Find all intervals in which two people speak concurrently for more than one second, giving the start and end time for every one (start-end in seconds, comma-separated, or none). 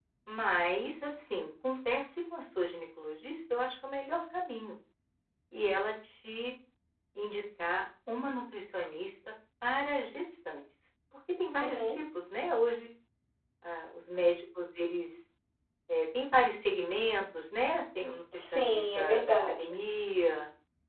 18.4-19.6